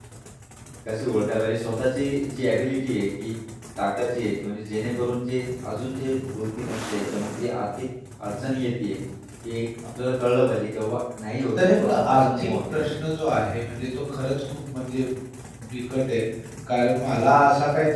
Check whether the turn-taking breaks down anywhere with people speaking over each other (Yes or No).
Yes